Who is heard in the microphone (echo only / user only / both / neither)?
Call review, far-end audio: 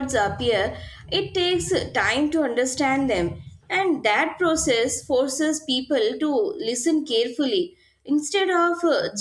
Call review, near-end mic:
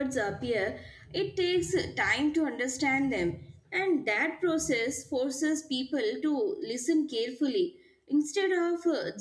echo only